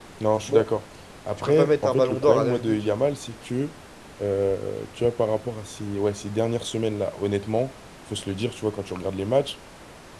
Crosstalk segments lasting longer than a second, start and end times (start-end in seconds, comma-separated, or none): 1.5-2.8